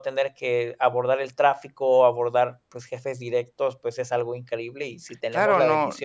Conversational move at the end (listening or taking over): taking over